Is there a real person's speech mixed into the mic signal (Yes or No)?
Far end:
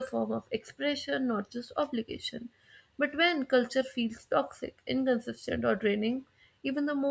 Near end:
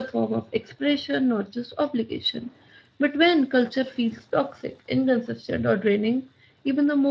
No